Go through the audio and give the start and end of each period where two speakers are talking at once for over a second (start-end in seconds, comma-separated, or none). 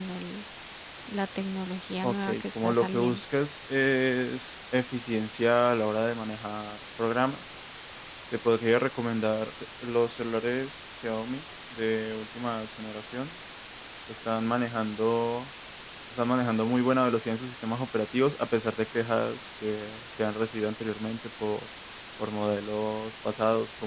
2.0-3.3